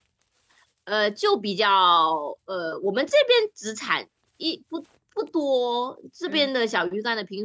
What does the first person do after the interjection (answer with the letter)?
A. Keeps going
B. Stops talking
A